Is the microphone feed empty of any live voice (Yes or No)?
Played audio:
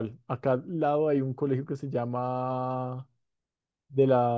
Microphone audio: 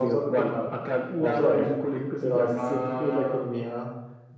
No